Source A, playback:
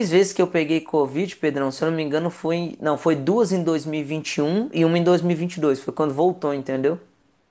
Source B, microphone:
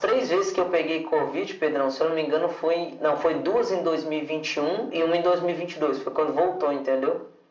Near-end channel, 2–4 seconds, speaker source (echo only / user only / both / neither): echo only